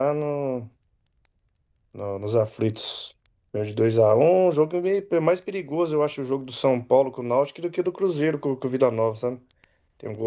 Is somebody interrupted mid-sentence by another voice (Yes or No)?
No